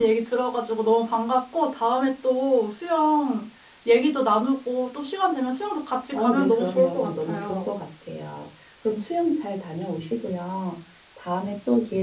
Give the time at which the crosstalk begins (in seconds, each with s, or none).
6.1 s